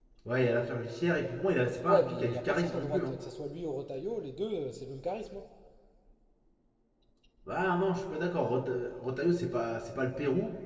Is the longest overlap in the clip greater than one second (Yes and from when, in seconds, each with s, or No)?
Yes, from 1.9 s